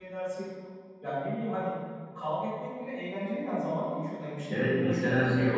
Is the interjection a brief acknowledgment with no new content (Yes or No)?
No